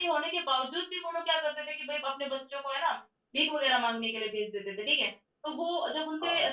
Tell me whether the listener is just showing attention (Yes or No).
Yes